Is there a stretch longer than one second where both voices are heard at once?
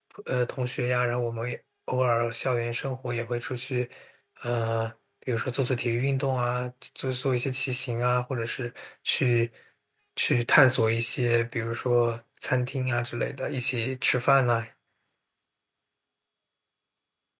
No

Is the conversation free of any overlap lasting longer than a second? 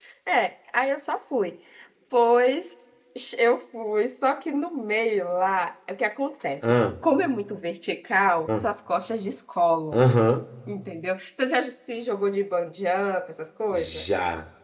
Yes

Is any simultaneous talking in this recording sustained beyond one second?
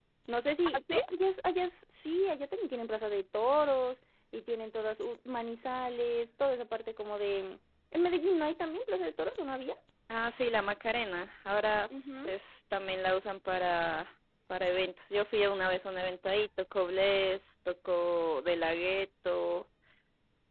No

